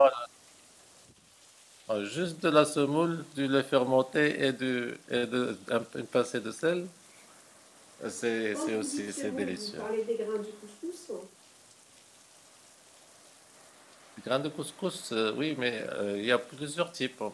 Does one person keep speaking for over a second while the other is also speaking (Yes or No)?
Yes